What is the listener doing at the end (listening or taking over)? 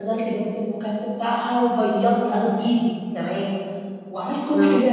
listening